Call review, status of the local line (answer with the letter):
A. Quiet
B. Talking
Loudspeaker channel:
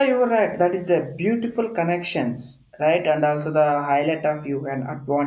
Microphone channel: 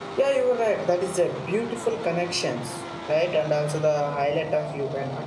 A